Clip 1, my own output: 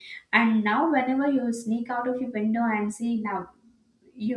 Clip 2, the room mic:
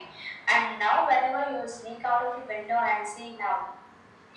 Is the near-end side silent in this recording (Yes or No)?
Yes